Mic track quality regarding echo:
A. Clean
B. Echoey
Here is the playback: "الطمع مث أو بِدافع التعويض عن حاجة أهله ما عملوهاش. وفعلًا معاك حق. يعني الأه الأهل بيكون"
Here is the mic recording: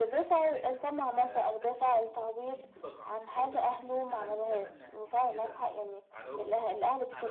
B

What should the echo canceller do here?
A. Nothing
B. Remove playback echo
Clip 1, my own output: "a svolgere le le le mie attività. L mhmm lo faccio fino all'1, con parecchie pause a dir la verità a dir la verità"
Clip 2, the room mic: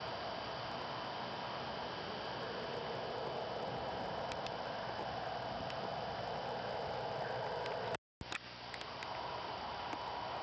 A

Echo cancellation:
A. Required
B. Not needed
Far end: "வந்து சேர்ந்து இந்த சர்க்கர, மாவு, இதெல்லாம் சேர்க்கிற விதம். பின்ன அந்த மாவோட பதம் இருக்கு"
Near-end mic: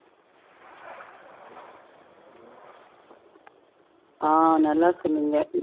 B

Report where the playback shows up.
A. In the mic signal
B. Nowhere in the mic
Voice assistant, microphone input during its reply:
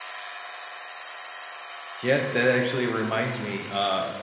B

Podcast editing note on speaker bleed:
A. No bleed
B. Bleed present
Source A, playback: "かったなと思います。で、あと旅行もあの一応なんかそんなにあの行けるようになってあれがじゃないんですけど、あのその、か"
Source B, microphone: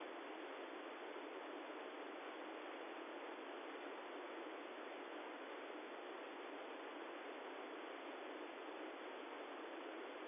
A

